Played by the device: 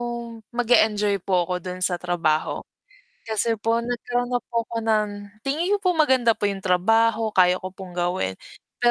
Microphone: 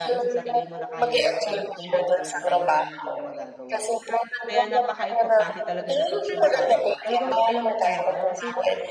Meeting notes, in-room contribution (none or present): present